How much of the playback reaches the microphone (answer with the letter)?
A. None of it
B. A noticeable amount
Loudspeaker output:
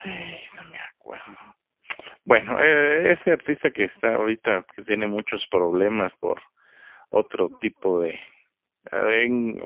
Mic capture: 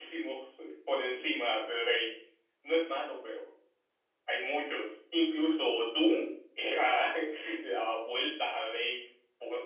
A